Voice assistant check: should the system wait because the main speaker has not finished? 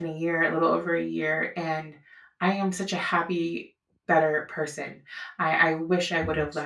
Yes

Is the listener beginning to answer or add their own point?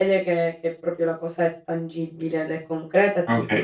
Yes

